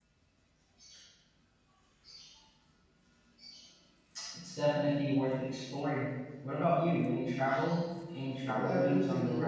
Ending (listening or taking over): taking over